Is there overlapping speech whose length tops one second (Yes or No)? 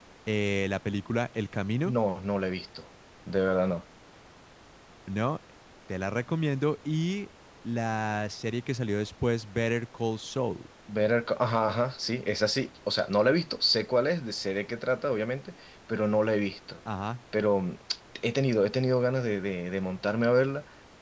No